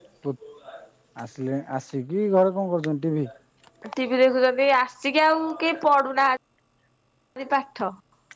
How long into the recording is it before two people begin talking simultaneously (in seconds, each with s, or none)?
none